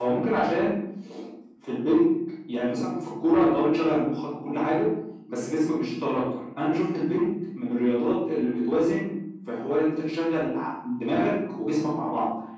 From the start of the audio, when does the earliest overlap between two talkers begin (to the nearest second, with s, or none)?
none